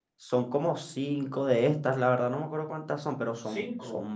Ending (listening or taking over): listening